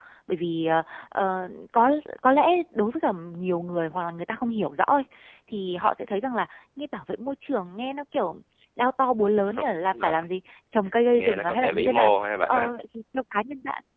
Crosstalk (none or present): present